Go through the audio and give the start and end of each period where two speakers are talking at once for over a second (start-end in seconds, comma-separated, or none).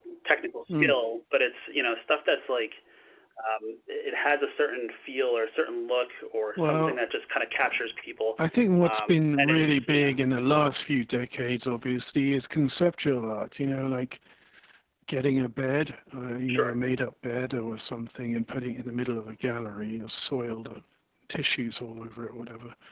8.8-10.1